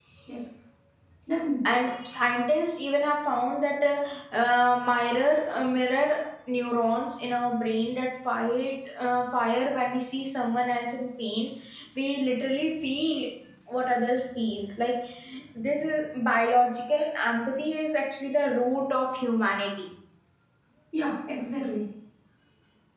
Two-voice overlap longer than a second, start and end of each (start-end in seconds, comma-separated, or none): none